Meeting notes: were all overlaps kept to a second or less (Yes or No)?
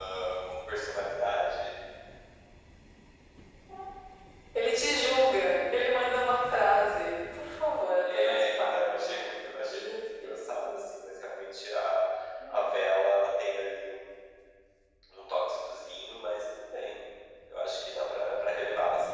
No